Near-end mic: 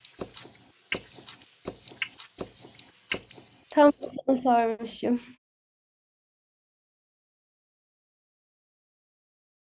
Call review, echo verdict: none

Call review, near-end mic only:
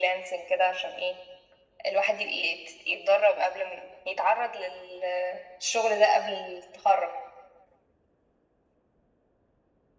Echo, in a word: present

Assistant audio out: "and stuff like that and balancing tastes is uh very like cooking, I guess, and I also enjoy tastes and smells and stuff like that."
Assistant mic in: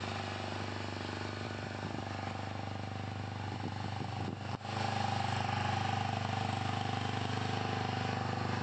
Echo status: none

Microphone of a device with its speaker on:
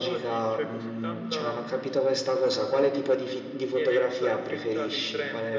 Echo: present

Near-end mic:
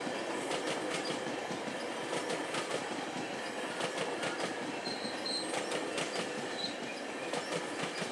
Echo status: none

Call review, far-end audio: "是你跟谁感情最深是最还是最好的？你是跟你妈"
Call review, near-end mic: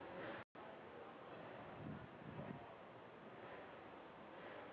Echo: none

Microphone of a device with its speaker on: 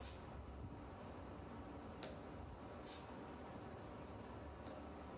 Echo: none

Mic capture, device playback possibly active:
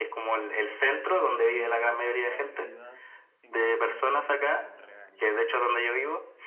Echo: present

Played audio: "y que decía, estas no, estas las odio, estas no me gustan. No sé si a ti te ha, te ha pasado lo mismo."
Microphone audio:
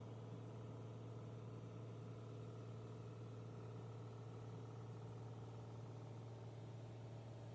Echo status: none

